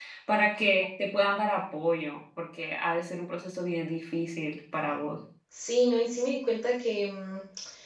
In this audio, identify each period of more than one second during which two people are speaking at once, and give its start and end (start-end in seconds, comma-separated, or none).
none